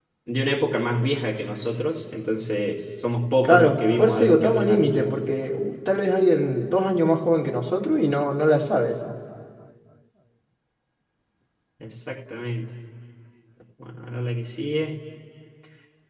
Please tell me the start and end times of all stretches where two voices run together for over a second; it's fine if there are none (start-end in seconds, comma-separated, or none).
3.4-5.1